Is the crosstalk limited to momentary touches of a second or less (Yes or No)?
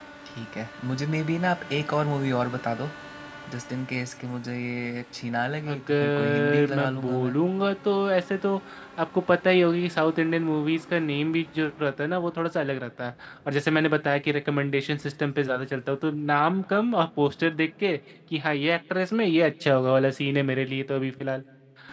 No